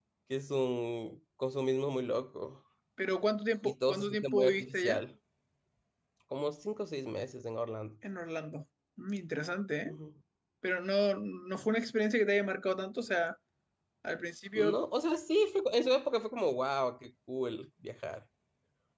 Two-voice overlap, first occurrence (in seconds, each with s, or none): 3.6 s